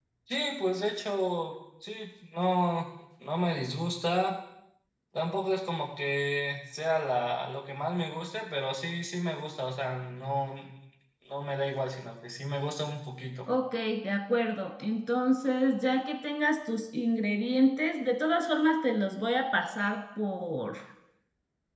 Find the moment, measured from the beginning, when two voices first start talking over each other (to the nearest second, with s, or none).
none